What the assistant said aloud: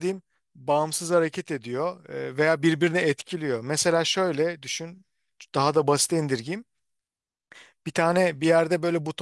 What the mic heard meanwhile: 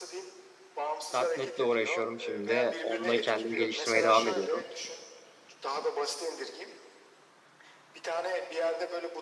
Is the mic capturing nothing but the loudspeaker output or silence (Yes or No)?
No